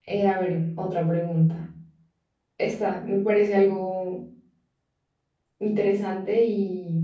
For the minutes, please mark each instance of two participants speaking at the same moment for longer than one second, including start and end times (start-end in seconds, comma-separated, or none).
none